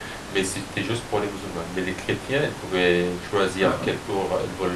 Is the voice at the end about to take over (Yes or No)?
No